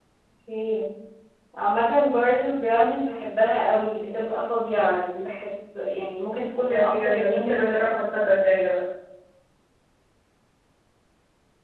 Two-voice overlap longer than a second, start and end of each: 6.7-8.0

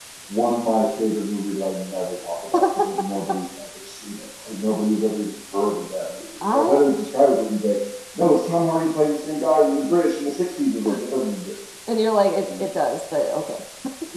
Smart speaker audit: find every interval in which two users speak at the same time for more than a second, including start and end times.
none

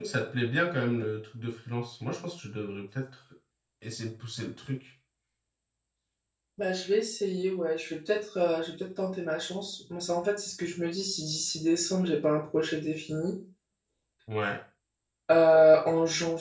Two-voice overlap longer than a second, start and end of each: none

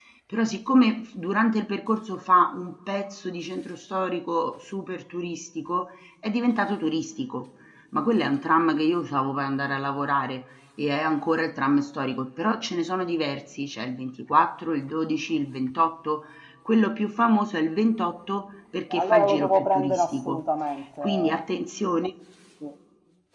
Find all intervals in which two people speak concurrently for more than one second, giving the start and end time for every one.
18.9-20.4

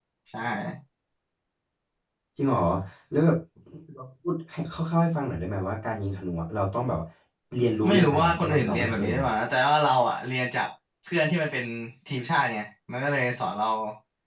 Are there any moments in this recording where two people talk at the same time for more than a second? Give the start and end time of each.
7.9-9.3

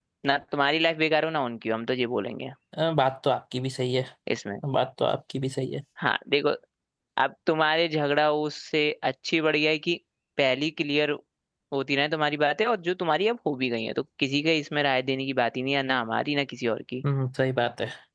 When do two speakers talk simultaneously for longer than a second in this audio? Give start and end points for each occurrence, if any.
none

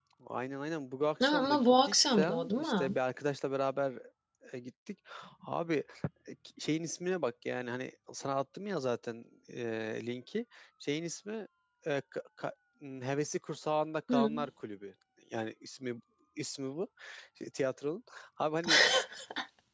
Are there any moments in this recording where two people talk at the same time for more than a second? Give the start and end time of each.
1.2-3.0

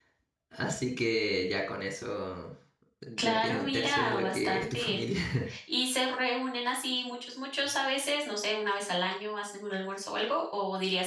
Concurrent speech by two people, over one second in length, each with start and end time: 3.2-5.0

